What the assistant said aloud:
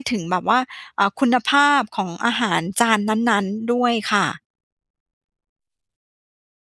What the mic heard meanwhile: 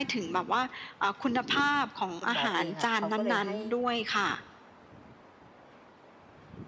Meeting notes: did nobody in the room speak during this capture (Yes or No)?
No